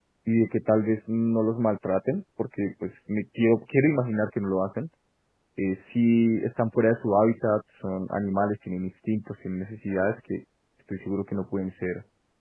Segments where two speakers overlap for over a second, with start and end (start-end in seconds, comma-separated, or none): none